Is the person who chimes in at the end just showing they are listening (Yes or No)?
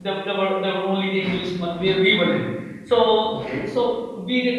Yes